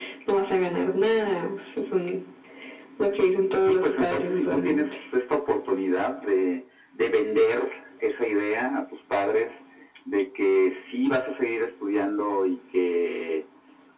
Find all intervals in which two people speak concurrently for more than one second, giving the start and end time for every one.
3.7-4.9

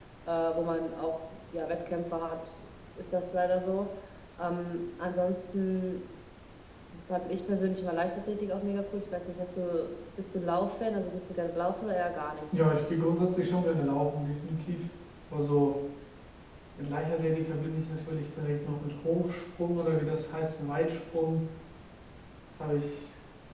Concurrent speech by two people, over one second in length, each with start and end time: none

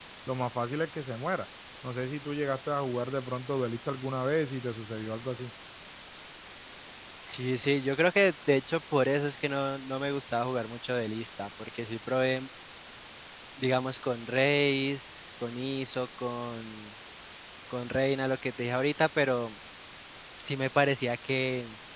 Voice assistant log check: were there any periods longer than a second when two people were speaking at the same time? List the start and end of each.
none

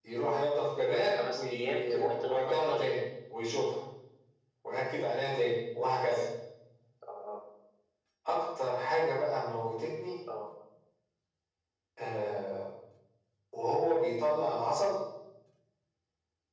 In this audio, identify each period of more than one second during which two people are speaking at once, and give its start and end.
0.9-2.9

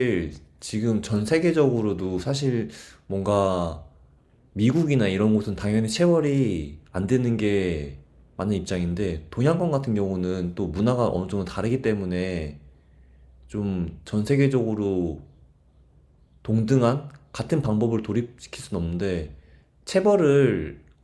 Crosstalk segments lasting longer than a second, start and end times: none

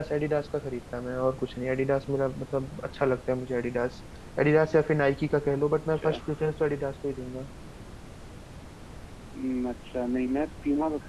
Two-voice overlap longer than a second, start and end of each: none

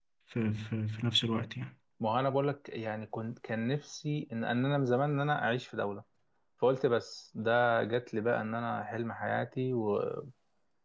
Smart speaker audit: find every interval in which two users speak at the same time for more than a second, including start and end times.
none

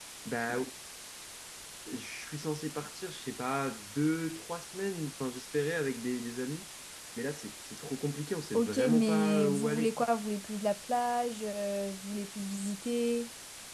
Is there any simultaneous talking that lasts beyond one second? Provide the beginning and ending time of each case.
8.5-10.1

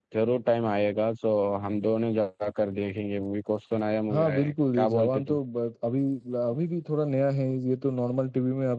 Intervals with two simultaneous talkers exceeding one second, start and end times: 4.1-5.4

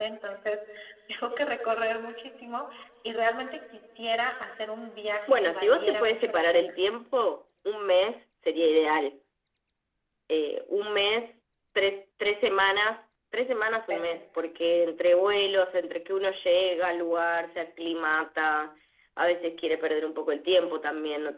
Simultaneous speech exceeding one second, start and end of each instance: 5.3-6.8

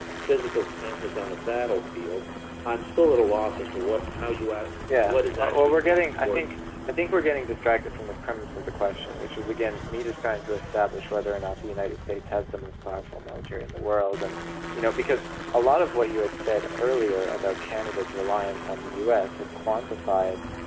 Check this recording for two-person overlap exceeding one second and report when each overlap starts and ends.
5.0-6.5

